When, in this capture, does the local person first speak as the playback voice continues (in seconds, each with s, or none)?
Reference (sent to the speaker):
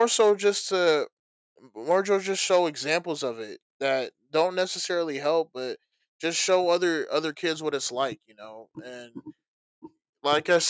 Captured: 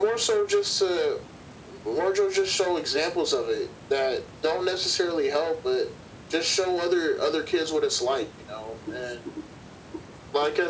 none